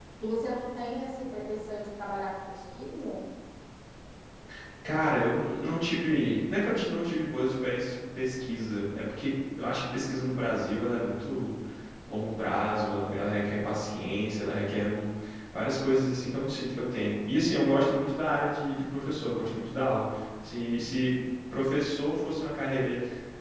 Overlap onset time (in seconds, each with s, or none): none